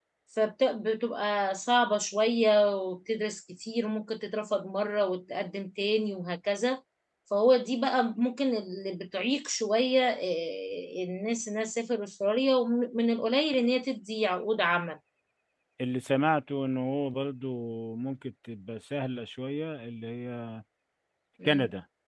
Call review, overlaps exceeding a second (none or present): none